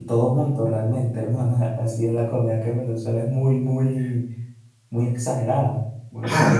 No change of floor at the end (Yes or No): No